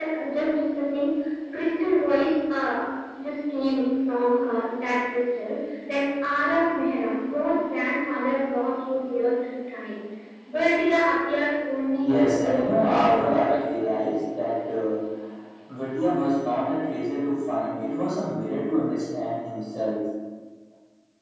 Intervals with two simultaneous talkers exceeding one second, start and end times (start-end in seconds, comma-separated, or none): 12.0-13.4